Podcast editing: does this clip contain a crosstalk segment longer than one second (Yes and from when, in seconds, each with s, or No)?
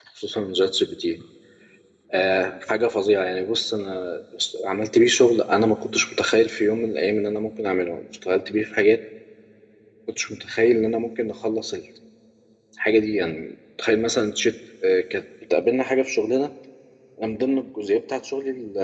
No